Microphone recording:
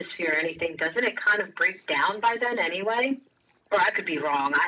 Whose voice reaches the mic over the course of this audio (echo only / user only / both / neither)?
echo only